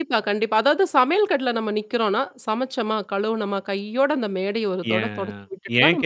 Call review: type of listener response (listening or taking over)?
taking over